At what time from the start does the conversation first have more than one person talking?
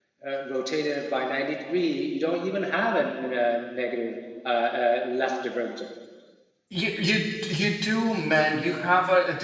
none

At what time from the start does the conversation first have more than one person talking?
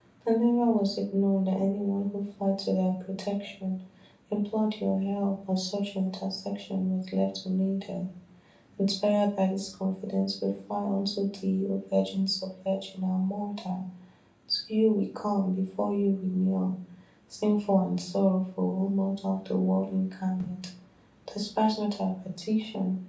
none

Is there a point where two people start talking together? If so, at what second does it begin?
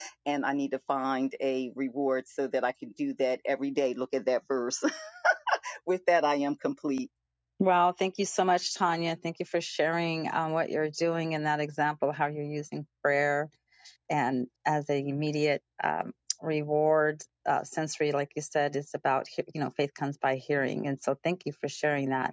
none

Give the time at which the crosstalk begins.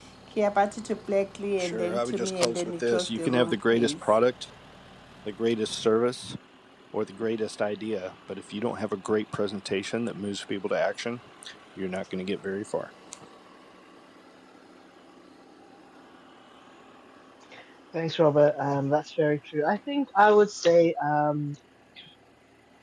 2 s

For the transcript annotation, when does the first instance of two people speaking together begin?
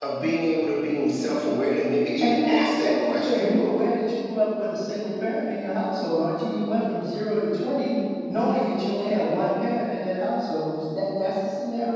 2 s

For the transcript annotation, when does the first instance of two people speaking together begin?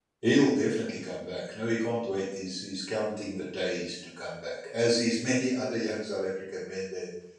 none

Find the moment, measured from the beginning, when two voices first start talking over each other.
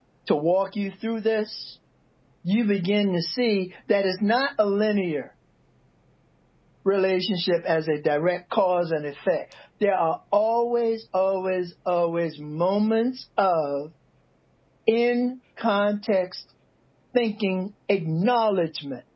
none

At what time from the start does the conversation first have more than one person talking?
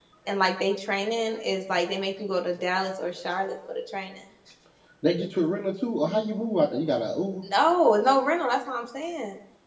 none

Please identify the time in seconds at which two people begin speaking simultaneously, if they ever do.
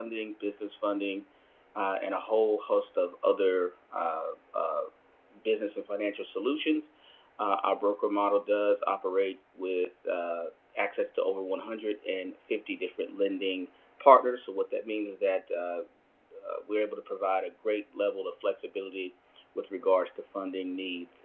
none

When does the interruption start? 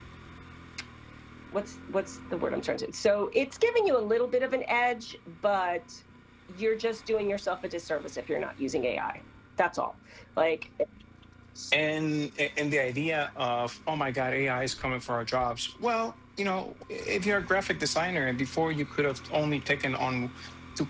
none

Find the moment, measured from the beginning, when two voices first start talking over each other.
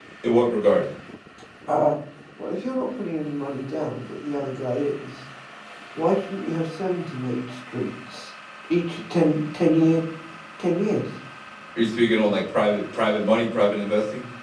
none

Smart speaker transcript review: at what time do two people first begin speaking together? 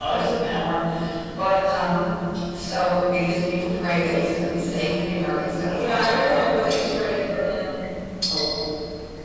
6 s

